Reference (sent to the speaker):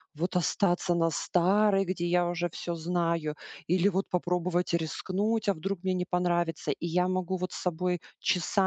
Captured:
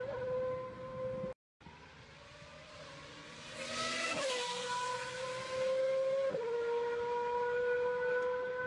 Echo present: No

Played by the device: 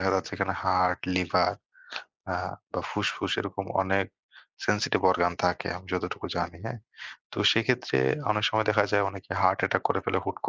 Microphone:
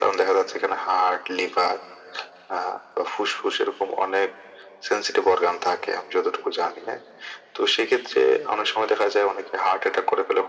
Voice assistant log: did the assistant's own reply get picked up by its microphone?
Yes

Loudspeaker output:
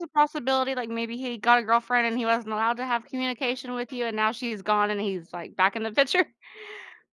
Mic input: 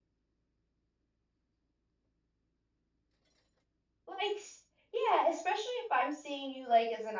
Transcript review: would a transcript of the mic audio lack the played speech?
Yes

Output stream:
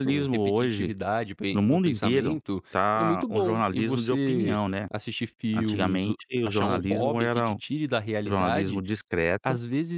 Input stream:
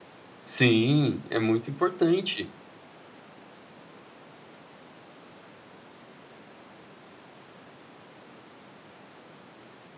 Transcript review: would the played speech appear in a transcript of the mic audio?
No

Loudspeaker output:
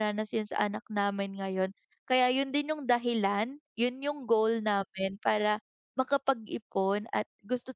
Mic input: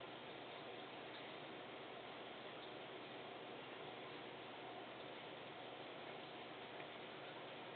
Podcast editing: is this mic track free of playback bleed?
Yes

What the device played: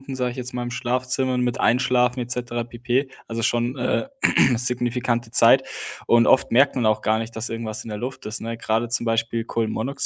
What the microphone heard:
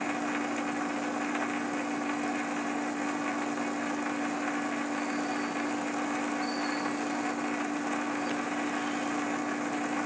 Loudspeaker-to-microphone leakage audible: No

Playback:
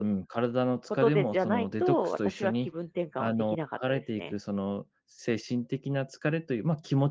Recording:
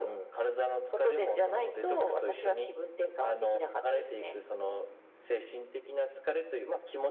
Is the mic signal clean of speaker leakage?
No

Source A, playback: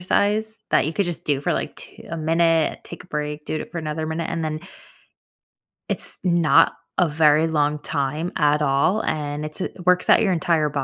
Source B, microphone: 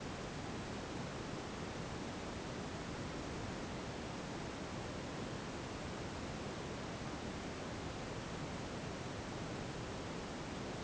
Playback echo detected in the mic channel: No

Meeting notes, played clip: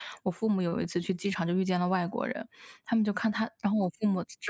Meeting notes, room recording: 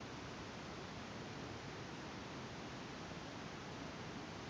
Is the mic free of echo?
Yes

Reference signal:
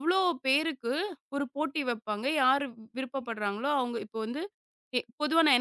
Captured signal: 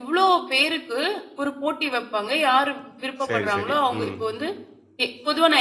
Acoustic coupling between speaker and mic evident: Yes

